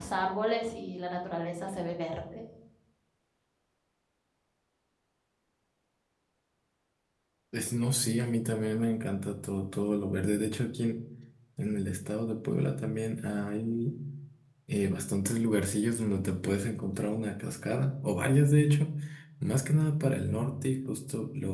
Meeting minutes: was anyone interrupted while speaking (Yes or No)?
No